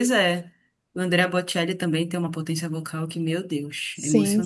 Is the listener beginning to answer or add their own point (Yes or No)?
Yes